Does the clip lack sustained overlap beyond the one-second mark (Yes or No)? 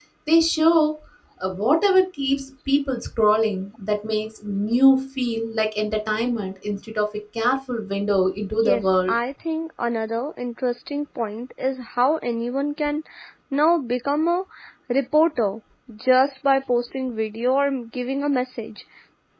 Yes